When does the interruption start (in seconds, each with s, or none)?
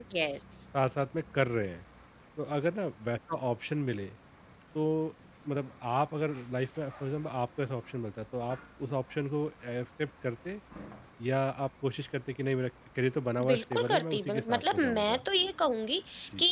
13.4 s